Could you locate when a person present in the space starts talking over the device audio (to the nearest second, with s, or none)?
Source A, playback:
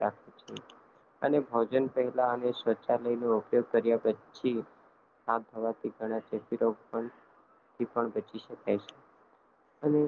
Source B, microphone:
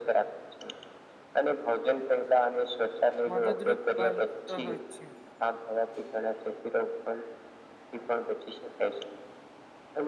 3 s